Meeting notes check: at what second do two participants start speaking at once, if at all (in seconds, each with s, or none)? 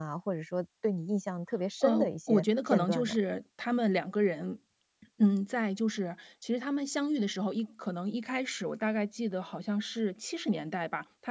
1.8 s